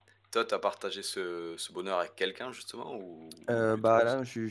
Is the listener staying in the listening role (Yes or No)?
No